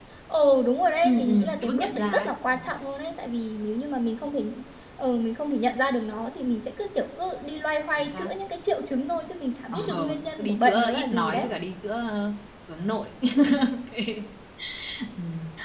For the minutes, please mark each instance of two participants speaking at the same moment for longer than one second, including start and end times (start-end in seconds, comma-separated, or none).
1.0-2.7, 9.7-11.5